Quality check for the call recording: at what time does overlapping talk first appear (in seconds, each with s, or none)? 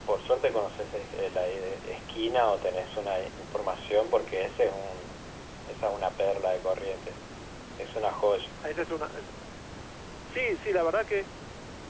none